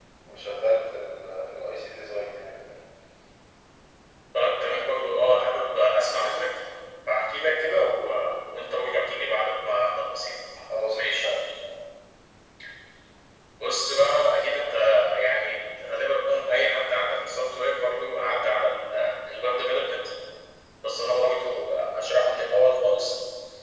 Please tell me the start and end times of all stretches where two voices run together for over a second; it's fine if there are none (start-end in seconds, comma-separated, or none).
none